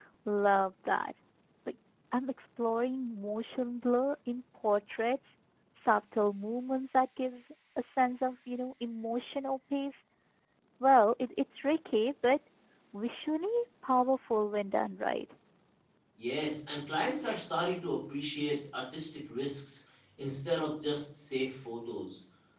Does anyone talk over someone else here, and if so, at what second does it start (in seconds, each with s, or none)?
none